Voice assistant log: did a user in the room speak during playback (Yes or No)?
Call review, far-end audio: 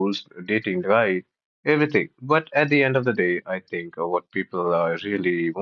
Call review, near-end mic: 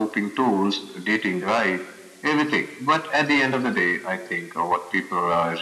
No